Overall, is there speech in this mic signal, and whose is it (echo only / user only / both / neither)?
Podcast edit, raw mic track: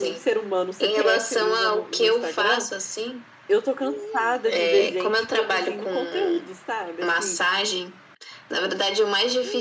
both